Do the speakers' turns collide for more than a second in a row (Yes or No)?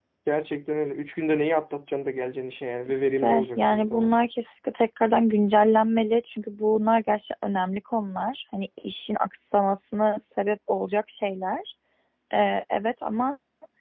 Yes